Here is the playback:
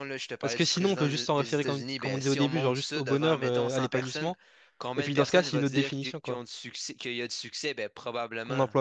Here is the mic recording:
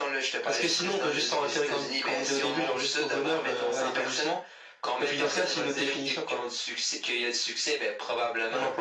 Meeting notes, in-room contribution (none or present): none